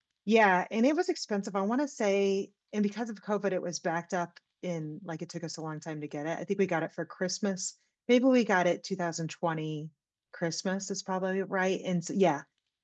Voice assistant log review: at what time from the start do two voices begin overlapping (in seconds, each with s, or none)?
none